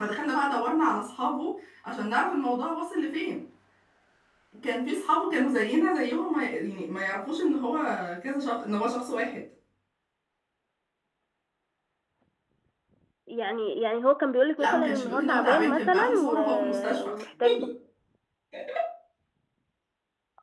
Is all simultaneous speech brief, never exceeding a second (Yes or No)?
No